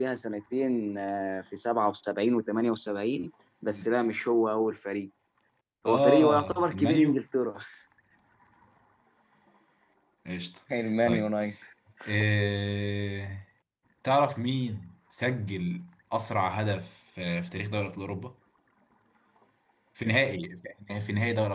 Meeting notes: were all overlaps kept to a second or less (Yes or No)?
No